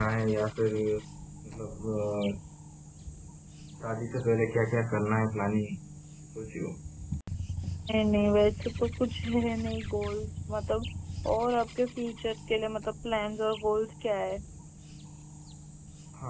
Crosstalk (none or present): none